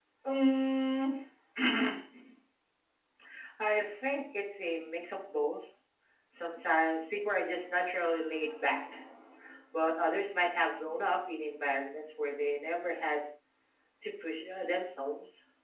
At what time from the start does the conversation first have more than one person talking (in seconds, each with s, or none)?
none